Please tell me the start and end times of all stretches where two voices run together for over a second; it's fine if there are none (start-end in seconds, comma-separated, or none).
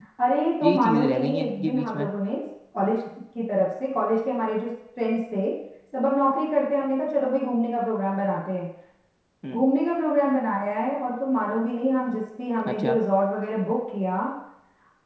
0.6-2.1